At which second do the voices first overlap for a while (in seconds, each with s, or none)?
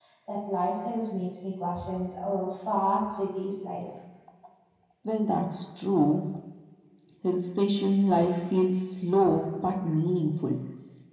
none